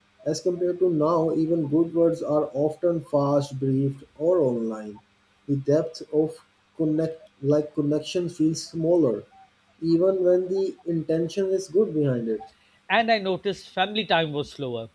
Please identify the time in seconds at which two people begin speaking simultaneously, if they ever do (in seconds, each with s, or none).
none